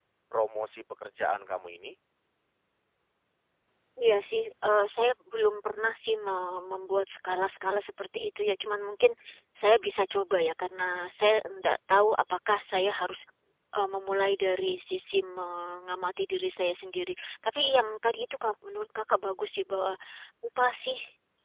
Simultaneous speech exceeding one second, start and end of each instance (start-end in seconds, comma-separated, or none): none